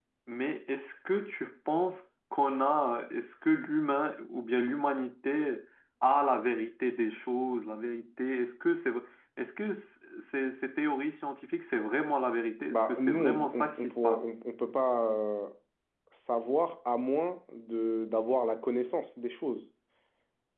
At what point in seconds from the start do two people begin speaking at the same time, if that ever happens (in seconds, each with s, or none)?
12.7 s